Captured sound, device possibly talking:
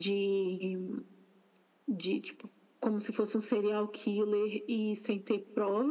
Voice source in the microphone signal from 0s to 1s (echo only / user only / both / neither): echo only